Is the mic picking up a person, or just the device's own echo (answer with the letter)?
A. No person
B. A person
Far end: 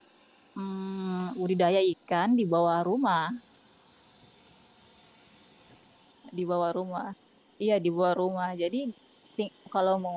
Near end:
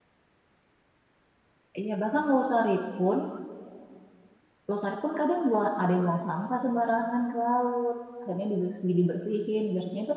B